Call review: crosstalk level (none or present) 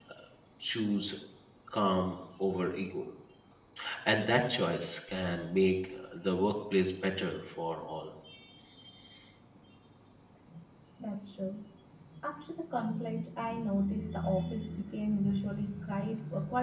none